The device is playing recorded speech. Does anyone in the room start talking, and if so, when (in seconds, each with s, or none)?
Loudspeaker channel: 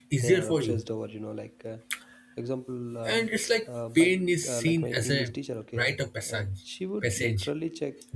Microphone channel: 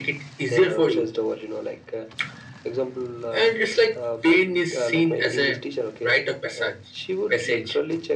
none